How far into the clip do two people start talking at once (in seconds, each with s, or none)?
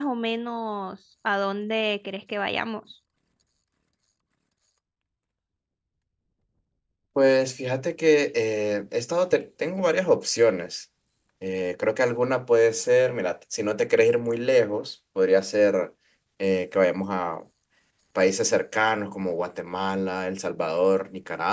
none